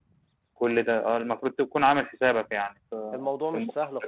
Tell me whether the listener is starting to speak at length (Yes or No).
Yes